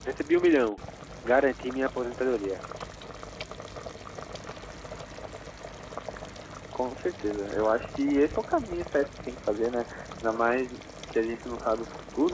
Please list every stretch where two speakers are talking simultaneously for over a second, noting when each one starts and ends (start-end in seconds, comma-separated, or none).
none